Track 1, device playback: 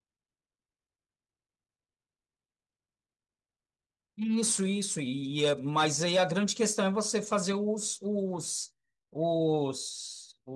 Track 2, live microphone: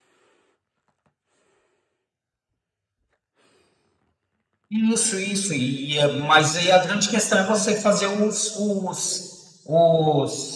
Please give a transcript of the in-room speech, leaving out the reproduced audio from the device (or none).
none